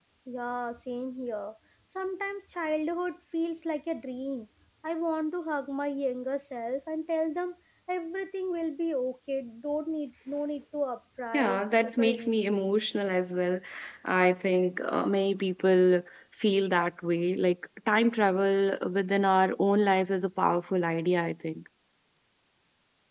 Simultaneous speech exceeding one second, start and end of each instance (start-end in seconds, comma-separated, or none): 11.3-12.7